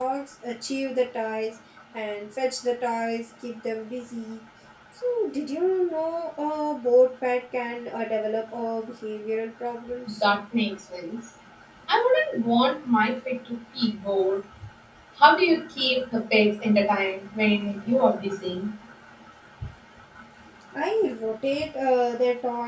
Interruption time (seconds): none

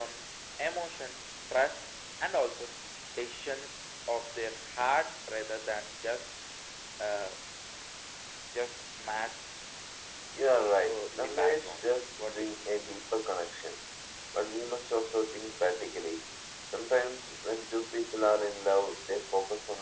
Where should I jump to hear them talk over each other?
10.9 s

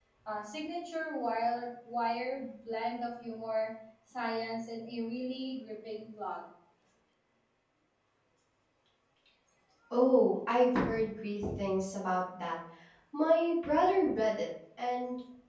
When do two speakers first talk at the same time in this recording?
none

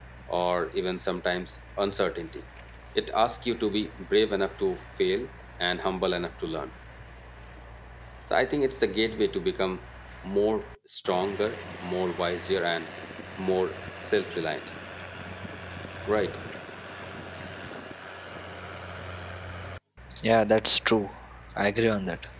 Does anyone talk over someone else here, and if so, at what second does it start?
none

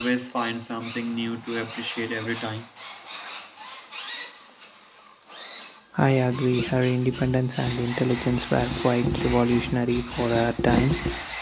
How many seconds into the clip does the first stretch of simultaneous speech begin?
none

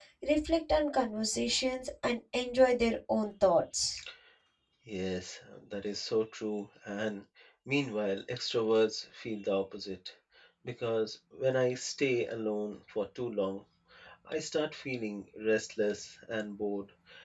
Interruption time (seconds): none

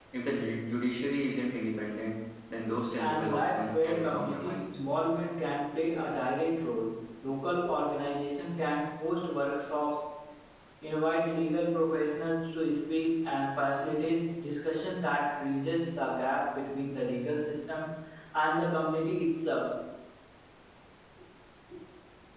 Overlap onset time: 3.0 s

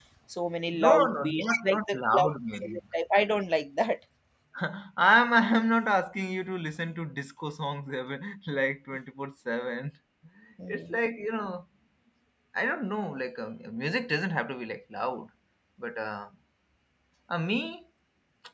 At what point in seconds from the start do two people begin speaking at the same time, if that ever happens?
0.7 s

